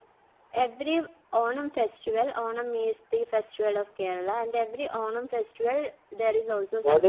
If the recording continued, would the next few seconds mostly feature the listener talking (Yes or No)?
Yes